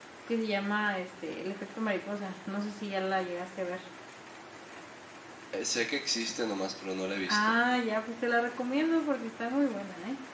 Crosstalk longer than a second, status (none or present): none